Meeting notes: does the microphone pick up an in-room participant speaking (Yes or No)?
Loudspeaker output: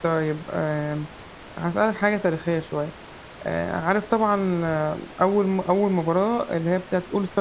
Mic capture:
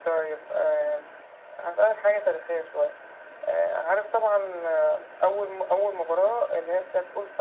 No